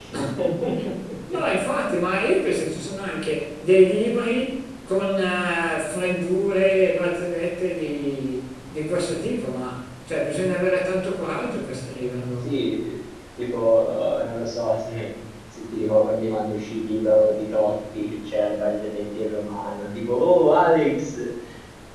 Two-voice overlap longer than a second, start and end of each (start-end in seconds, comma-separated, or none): none